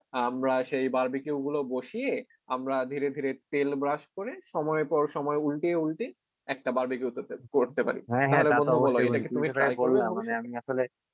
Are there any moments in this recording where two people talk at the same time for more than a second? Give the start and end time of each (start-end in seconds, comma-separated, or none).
8.3-10.2